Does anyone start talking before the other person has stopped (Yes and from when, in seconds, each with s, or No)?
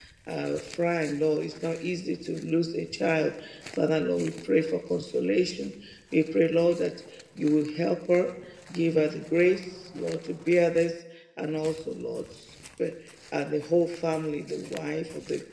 No